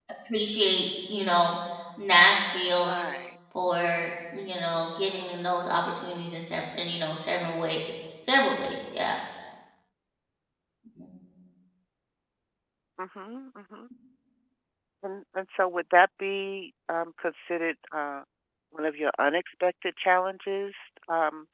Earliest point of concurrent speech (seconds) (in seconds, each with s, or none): none